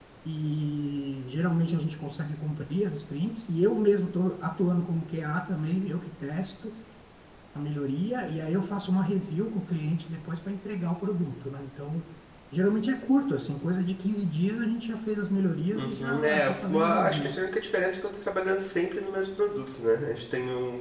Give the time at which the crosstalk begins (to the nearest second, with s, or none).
16 s